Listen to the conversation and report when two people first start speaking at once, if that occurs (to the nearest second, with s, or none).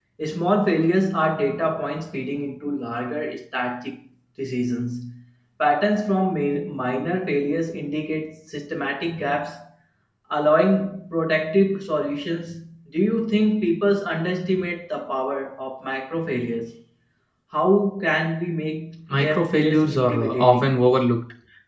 19 s